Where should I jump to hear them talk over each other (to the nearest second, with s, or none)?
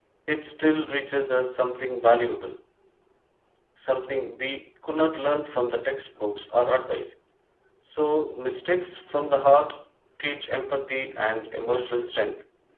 none